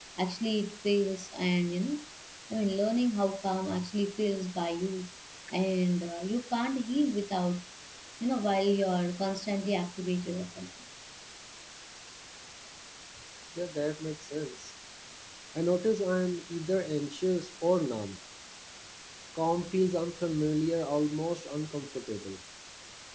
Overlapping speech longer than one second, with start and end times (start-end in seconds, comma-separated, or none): none